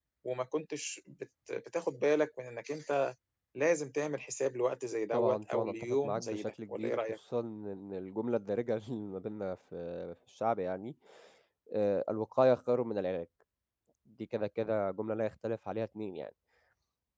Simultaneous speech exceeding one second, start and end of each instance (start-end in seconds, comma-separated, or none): 5.1-7.0